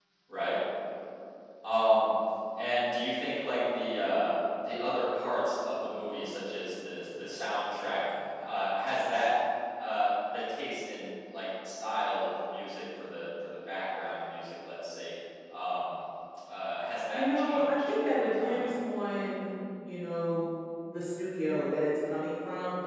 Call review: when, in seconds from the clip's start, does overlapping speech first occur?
17 s

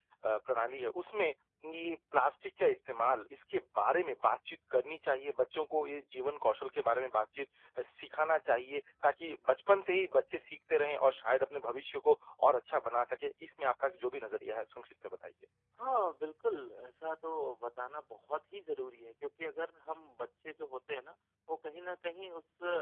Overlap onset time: none

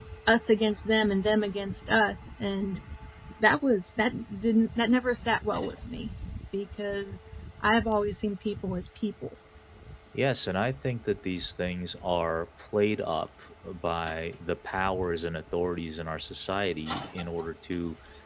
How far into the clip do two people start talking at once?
none

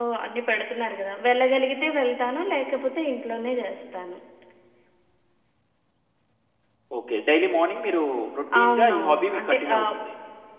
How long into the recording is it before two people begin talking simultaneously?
9 s

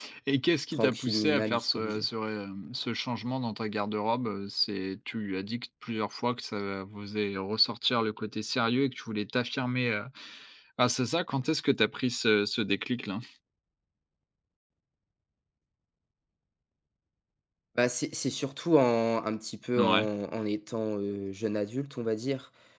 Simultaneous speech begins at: 1 s

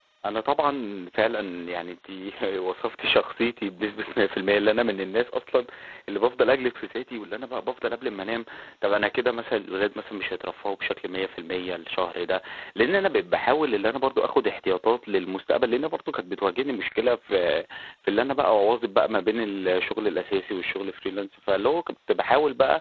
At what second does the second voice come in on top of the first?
none

